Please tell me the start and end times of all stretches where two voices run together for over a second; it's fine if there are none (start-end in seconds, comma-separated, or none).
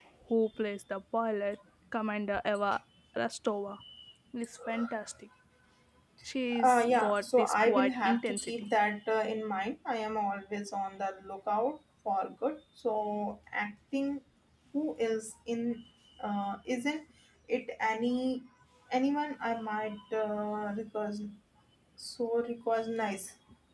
6.5-8.5